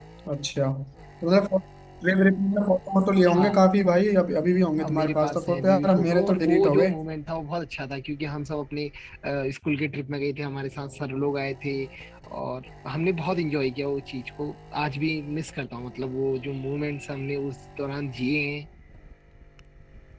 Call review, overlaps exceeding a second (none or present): present